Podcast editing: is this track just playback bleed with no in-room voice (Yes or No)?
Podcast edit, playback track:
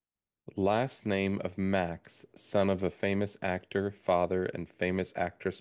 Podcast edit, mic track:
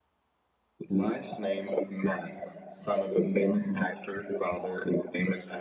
Yes